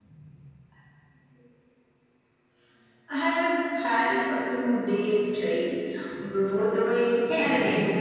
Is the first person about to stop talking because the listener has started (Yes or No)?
Yes